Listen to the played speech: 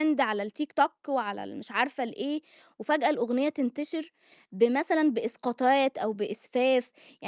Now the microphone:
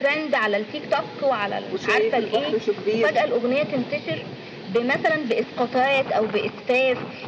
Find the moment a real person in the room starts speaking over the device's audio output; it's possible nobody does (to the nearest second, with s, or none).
2 s